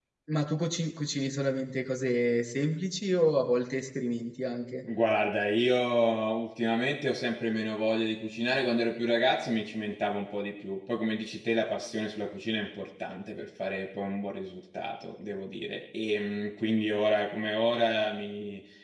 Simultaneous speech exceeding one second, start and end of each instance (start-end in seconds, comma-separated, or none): none